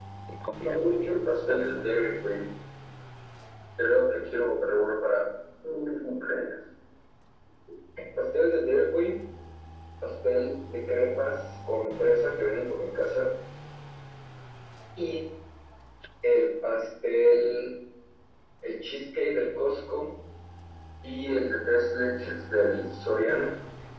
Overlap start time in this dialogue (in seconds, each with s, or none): 0.6 s